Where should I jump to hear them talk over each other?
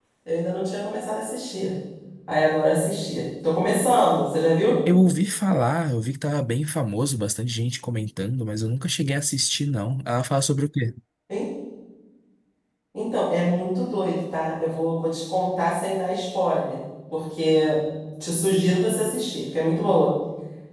none

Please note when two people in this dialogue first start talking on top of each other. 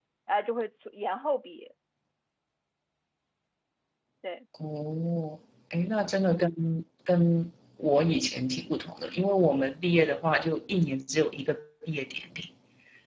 none

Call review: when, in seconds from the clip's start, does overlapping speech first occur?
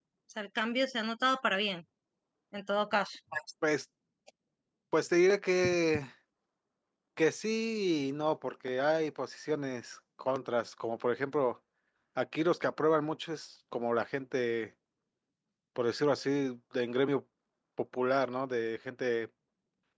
none

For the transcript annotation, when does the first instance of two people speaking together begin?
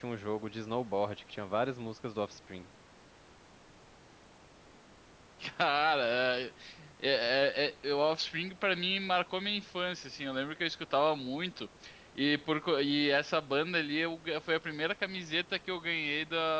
none

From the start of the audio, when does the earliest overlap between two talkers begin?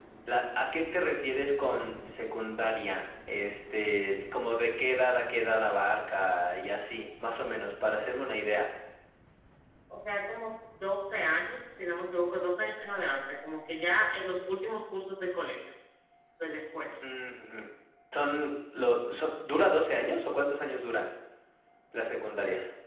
none

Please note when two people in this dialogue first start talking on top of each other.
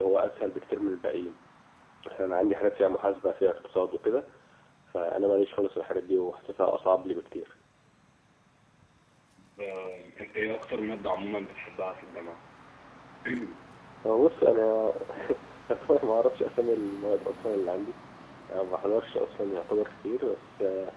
none

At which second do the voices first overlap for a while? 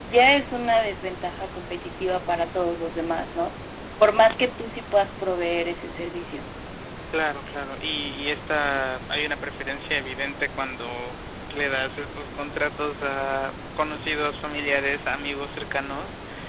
none

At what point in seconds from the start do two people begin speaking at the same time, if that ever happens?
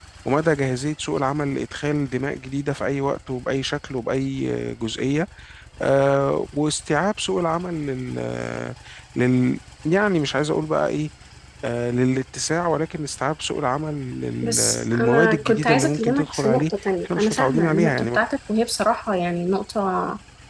14.4 s

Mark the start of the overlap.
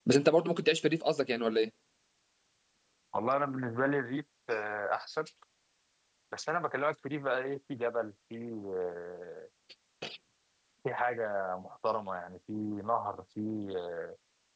none

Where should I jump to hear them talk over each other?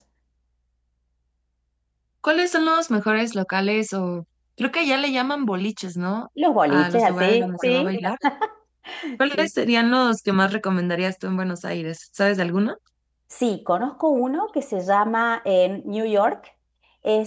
6.7 s

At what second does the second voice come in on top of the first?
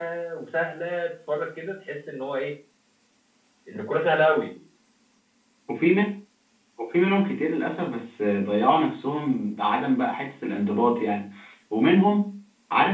none

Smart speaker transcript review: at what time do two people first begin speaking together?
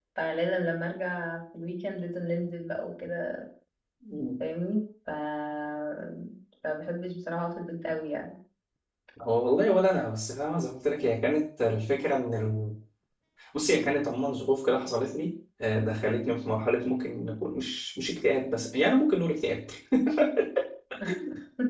none

